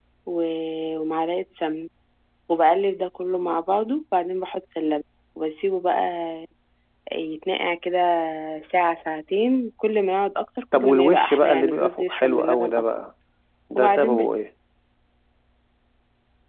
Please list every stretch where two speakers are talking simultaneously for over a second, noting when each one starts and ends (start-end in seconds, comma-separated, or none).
10.7-12.9